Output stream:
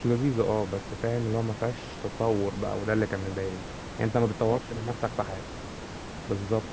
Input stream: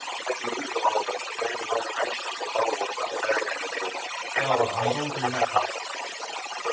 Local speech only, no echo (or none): اه عندهم في المكتب